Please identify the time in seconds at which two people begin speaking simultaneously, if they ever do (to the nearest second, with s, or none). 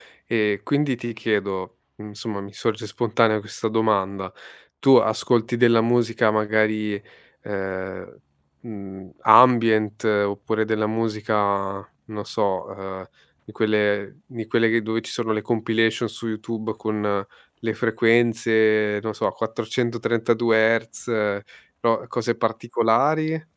none